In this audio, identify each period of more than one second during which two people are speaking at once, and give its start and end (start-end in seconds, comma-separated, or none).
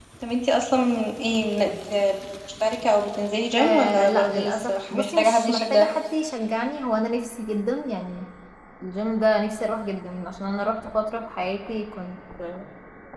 3.6-5.9